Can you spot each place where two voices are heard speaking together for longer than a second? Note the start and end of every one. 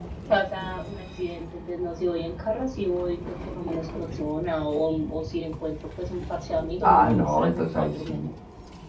6.8-8.2

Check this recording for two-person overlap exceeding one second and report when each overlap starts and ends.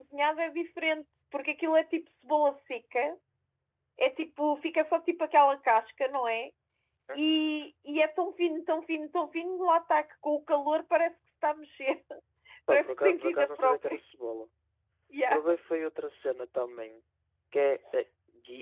12.7-14.0

